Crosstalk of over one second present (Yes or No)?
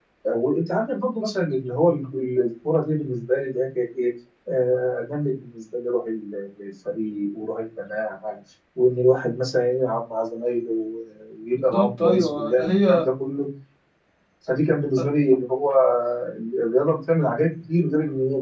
Yes